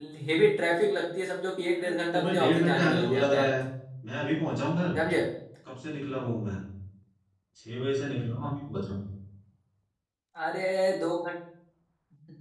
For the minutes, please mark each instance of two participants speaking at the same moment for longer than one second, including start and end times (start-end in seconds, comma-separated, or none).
1.8-3.5